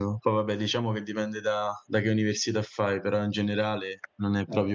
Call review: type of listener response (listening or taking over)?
taking over